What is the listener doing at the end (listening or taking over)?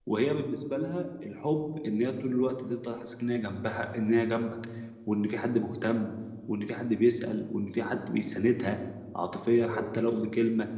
listening